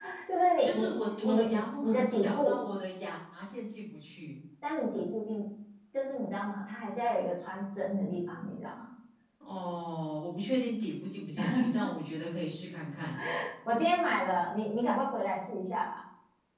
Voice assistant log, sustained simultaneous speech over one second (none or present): present